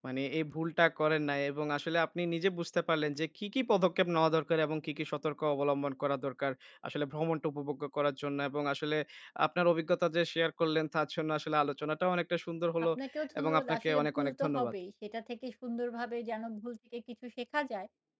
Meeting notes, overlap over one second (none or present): present